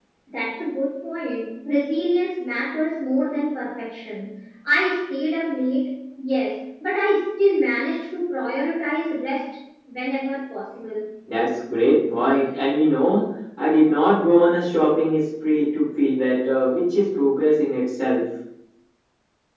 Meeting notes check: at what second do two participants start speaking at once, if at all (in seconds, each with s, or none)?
none